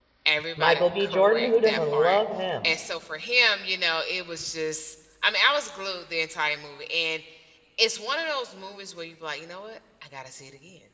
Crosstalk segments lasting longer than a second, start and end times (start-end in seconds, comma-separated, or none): 0.6-2.2